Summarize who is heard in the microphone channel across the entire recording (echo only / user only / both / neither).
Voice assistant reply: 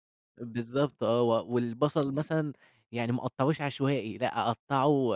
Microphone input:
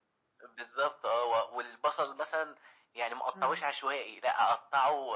both